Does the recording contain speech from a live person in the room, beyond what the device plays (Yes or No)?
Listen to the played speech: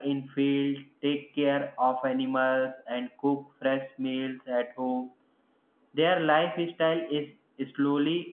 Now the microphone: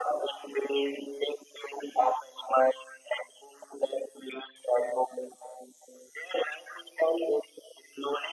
No